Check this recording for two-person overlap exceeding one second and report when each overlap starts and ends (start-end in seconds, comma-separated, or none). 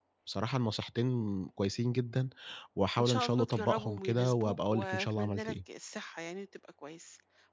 3.0-5.5